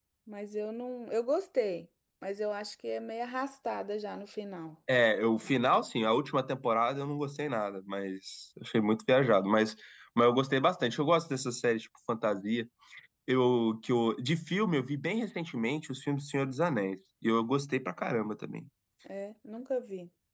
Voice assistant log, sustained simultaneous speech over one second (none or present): none